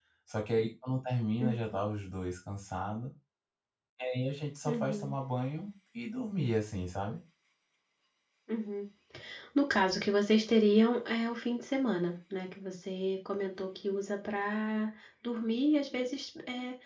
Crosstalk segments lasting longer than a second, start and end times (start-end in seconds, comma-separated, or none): none